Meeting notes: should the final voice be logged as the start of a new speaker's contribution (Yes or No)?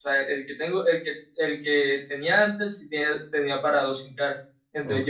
No